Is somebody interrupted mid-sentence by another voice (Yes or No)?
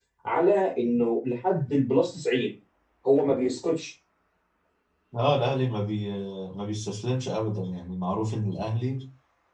No